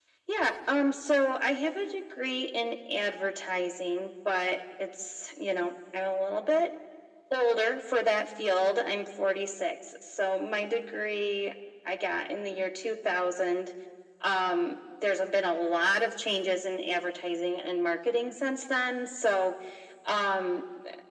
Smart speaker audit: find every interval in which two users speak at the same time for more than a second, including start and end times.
none

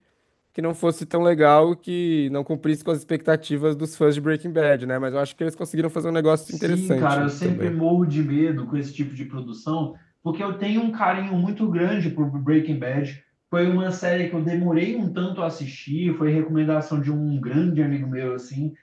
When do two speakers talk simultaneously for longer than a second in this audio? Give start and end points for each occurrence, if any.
6.5-7.7

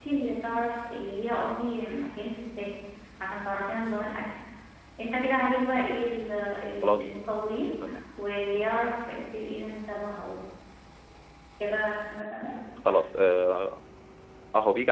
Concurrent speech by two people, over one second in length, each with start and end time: none

